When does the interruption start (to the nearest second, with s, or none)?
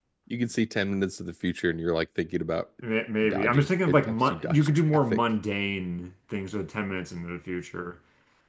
3 s